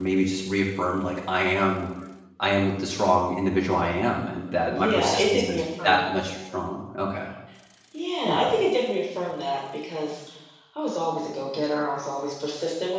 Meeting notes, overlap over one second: present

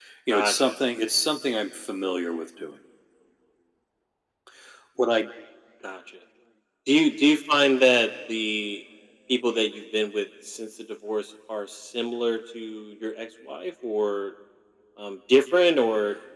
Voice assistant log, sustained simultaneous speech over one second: none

